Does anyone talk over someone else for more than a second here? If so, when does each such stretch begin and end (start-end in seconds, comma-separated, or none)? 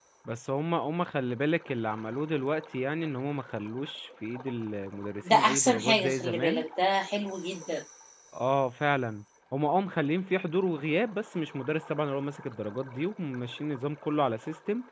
5.3-6.6